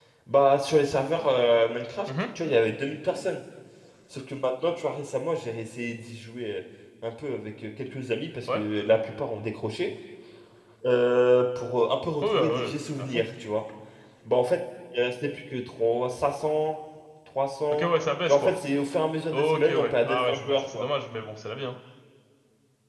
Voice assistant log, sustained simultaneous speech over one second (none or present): present